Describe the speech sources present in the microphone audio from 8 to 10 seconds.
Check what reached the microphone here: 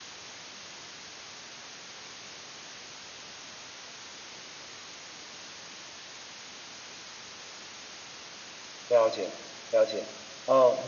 user only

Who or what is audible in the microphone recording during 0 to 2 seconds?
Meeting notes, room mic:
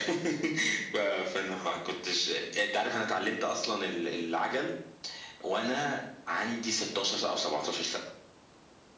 echo only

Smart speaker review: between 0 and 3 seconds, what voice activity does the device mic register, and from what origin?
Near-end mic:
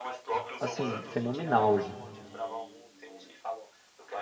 both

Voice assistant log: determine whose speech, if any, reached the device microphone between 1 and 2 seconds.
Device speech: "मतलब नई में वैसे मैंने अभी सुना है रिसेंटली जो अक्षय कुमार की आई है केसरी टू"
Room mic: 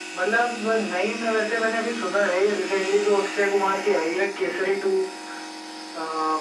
echo only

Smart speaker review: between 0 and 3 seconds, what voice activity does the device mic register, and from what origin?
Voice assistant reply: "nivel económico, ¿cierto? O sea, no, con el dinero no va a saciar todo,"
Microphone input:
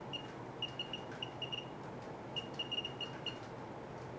neither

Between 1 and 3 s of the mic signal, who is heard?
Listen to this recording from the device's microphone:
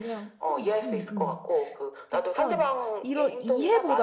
both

